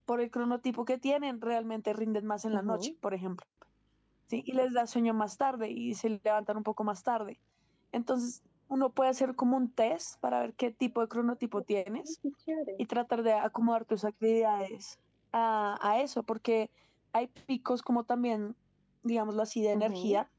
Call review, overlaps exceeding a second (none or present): none